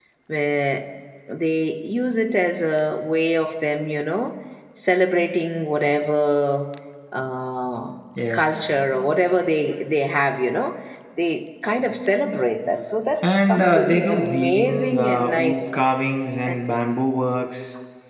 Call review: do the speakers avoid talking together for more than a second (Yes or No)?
No